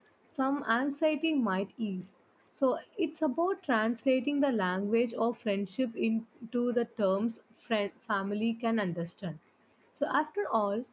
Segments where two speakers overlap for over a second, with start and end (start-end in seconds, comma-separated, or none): none